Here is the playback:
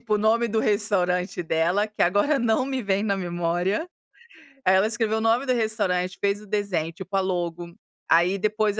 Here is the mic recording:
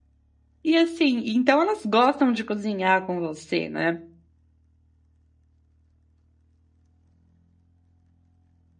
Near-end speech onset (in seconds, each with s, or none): 0.7 s